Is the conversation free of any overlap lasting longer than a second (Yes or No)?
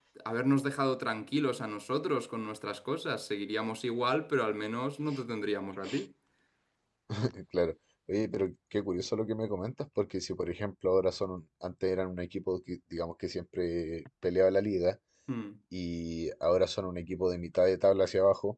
Yes